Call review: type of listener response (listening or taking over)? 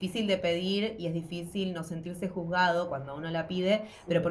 listening